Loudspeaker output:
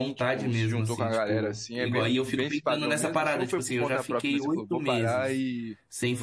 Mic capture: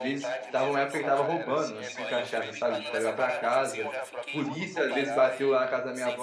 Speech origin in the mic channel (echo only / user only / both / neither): both